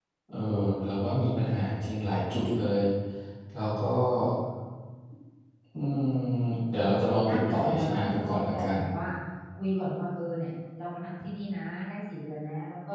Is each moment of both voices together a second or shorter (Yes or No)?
No